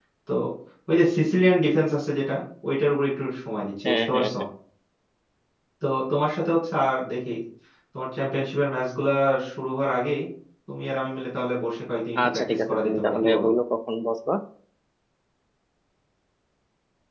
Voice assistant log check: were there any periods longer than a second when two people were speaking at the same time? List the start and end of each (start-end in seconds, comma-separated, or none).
12.2-13.4